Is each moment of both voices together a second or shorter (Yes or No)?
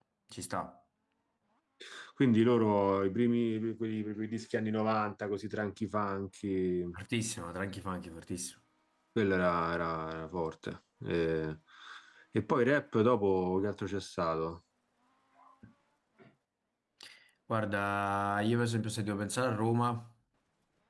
Yes